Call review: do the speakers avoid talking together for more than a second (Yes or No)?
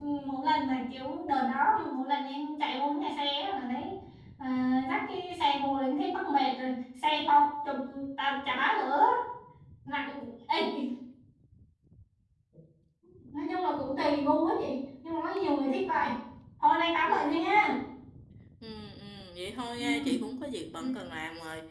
Yes